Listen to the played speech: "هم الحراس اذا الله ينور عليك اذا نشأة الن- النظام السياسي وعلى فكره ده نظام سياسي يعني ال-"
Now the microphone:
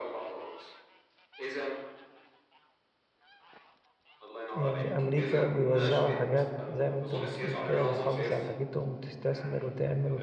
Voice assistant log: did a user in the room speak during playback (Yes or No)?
Yes